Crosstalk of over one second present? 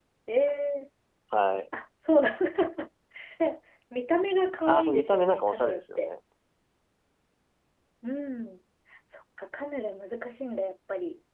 Yes, from 4.7 s

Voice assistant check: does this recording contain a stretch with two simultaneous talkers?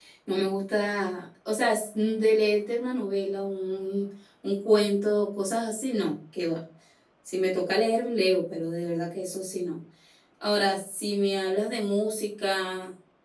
No

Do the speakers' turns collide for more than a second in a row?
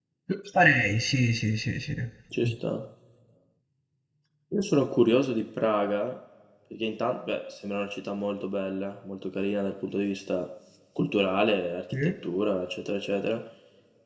No

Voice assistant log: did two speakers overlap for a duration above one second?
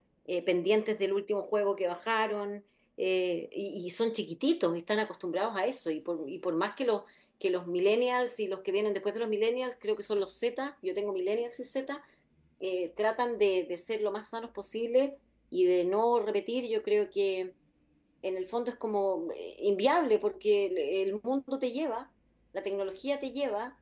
No

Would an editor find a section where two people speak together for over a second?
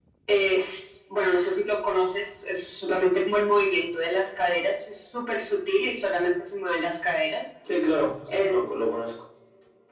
No

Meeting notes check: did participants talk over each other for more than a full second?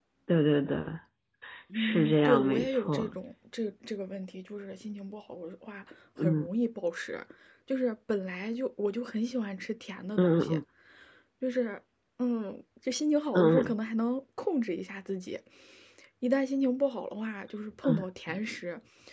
Yes, from 1.8 s

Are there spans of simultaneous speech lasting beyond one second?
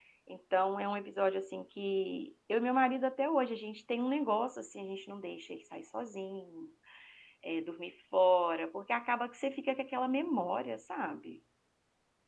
No

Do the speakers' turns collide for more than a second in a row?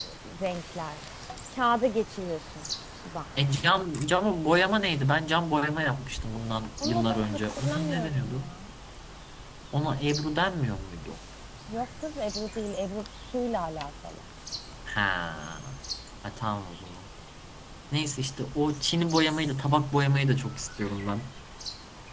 Yes, from 6.8 s

